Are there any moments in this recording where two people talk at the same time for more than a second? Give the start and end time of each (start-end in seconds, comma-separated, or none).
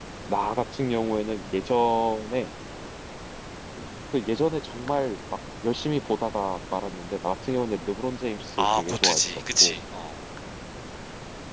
8.6-9.8